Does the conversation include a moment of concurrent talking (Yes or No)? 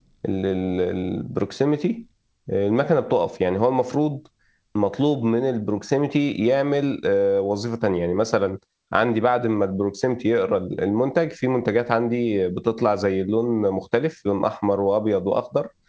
No